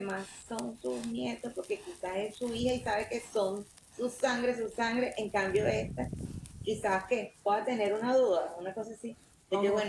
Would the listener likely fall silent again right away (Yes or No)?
Yes